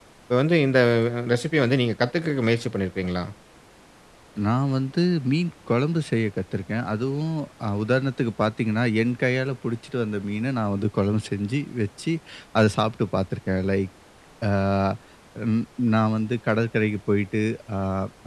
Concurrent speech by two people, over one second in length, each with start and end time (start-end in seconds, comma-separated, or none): none